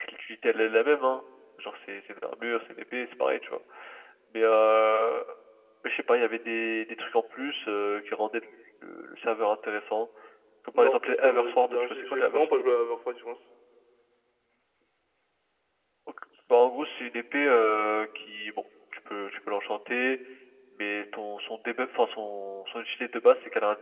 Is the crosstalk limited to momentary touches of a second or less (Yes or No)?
No